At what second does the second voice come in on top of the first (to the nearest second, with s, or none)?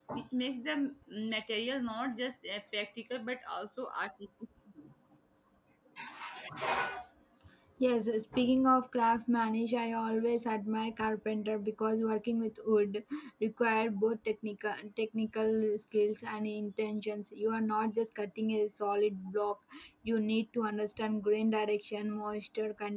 none